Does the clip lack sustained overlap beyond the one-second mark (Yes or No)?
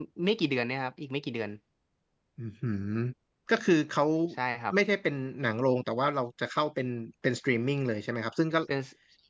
Yes